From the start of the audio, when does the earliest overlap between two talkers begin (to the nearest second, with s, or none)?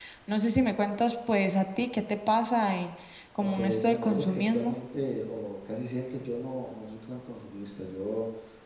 3 s